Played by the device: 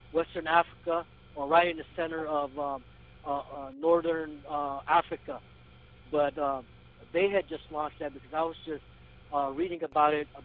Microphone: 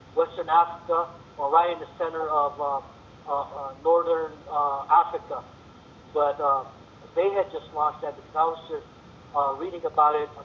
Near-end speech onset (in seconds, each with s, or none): none